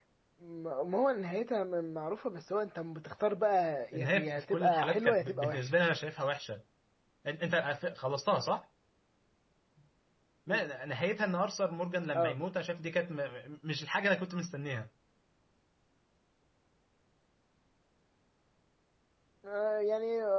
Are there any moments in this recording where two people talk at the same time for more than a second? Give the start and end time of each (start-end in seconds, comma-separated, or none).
3.9-5.7